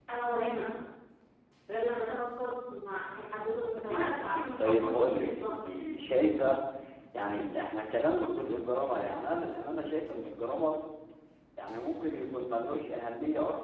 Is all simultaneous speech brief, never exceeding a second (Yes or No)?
No